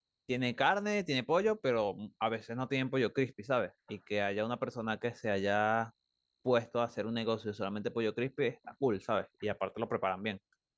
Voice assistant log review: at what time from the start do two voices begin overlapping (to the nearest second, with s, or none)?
none